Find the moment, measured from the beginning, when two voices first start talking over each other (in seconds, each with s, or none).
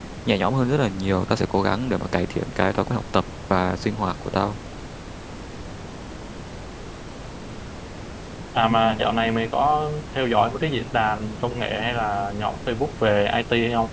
none